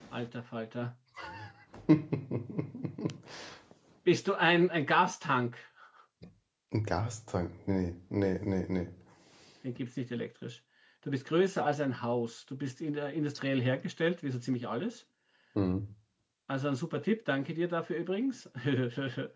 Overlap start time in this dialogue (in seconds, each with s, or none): none